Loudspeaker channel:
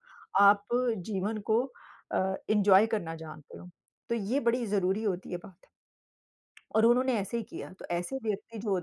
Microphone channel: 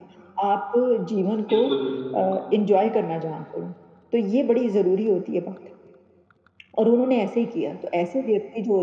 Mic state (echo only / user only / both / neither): both